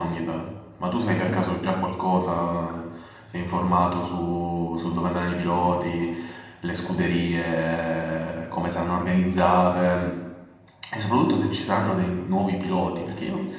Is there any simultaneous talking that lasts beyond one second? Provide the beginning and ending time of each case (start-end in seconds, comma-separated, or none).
none